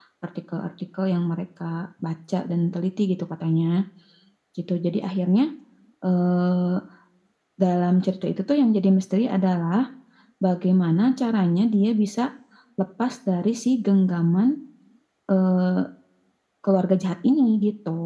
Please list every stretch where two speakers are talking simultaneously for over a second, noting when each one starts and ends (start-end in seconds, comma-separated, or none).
none